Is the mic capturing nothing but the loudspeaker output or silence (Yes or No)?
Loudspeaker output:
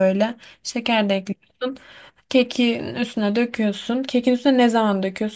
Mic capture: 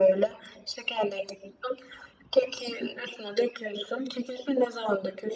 Yes